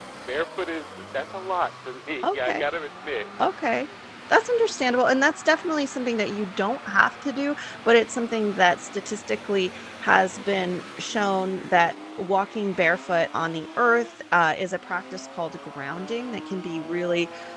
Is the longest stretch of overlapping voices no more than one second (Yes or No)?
Yes